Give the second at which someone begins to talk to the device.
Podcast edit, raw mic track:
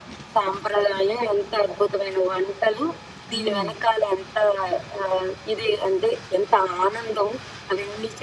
3.3 s

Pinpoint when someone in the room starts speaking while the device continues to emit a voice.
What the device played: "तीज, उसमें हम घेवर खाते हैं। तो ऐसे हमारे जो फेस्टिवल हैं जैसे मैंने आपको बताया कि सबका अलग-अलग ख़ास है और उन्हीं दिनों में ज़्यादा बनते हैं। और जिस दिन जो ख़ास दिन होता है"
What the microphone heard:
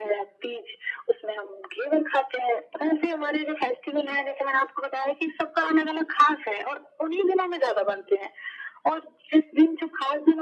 none

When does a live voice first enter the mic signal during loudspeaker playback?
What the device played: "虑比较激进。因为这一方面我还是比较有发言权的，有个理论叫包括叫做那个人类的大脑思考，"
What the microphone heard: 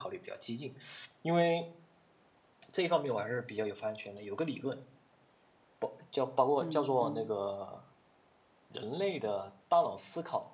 6.6 s

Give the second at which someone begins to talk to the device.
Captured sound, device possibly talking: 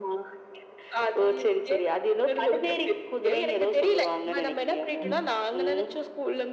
5.0 s

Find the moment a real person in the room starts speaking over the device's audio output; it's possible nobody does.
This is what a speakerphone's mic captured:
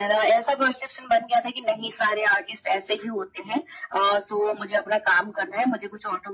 none

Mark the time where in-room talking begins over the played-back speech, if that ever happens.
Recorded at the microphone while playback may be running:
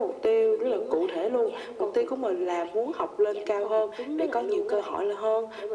none

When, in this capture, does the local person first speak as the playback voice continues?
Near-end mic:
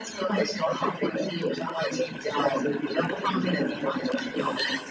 none

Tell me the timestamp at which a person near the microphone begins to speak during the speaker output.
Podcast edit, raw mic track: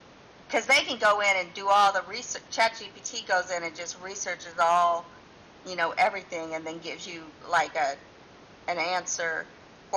none

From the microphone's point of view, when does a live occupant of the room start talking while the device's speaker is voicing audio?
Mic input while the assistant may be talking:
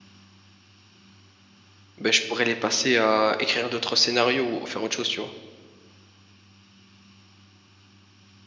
2.0 s

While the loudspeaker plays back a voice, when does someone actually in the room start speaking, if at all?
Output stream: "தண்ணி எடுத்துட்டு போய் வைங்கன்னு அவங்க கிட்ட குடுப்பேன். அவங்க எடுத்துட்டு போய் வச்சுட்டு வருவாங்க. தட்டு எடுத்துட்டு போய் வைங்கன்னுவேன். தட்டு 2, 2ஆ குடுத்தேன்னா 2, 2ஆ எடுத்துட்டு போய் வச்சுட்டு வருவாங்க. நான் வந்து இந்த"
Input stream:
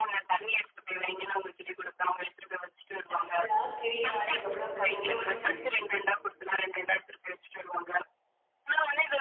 3.1 s

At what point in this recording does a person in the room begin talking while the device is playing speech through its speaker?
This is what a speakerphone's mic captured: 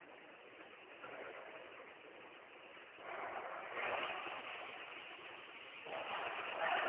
none

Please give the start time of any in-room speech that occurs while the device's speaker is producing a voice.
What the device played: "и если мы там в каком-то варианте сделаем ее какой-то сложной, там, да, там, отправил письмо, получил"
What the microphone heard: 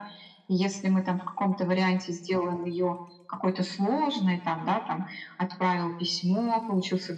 none

